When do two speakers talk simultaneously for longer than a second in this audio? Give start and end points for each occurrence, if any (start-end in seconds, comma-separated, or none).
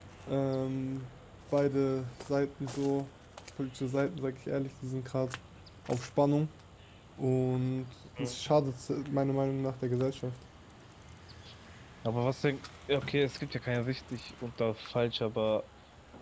none